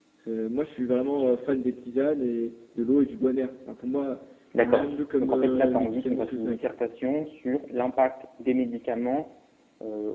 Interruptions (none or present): present